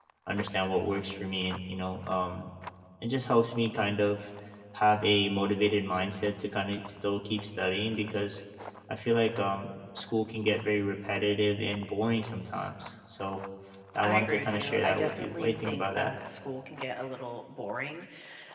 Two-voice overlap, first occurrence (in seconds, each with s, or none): 14.0 s